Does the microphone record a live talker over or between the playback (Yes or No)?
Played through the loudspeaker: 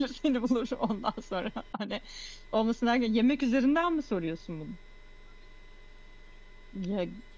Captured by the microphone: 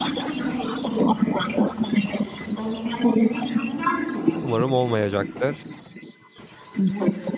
Yes